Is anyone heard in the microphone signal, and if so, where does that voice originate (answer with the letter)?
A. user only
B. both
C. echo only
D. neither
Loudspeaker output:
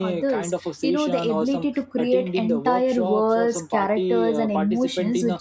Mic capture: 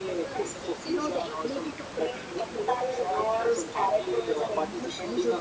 C